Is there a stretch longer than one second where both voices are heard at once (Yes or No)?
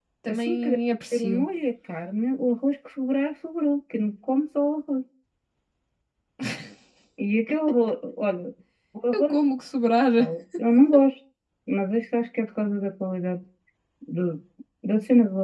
No